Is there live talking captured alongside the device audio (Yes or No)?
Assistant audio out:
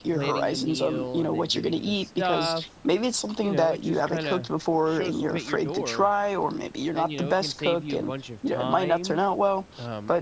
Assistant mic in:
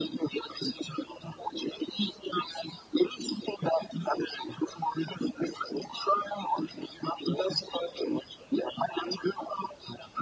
No